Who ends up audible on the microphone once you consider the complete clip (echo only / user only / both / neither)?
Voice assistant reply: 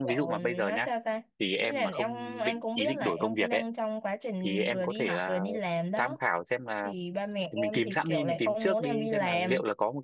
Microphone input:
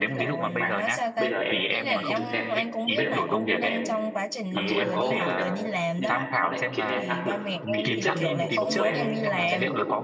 both